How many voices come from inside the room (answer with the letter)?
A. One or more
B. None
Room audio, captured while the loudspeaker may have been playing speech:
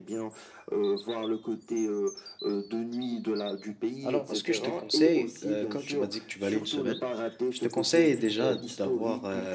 A